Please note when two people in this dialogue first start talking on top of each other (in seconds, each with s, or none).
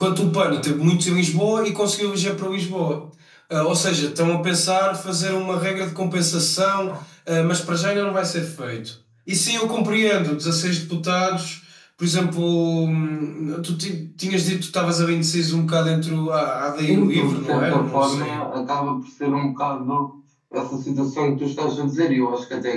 16.9 s